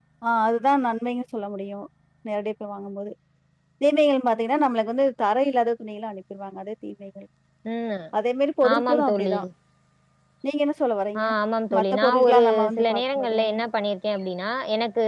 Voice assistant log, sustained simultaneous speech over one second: present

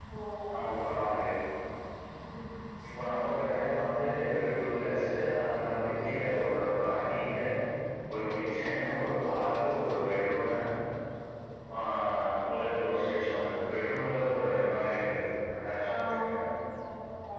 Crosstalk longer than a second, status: none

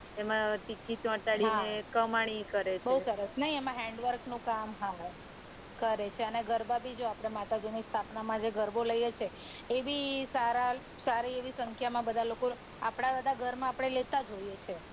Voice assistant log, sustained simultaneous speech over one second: none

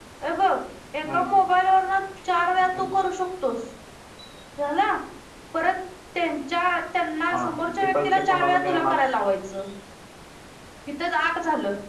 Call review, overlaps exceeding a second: present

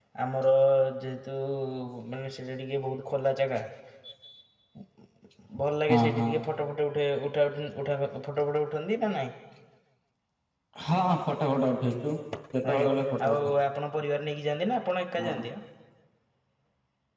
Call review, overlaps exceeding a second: none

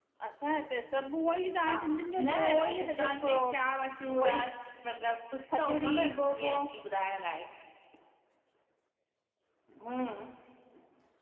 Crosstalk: present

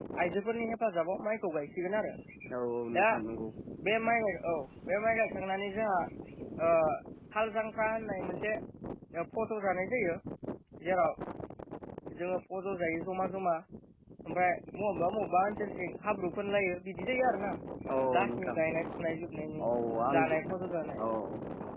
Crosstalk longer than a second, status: none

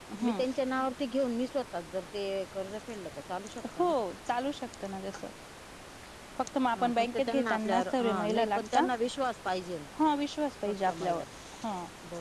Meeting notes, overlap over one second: present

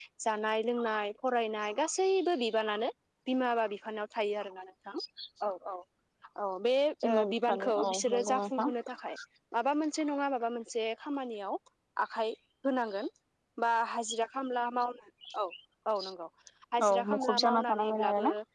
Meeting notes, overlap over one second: present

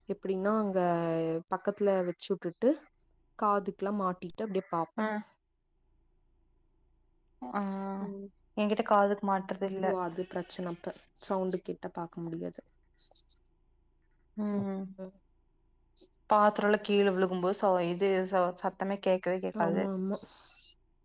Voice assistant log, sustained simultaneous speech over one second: none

